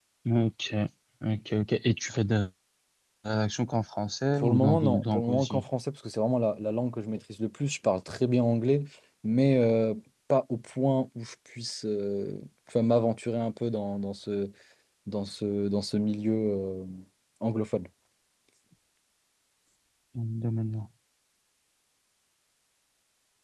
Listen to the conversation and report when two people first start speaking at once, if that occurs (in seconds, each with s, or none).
4.4 s